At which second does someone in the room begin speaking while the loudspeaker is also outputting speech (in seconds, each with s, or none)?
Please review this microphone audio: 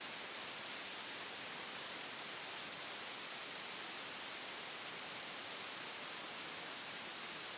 none